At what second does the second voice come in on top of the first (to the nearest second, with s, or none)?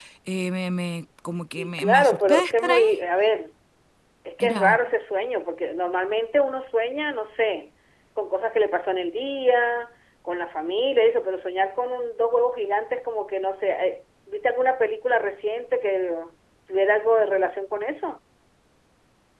2 s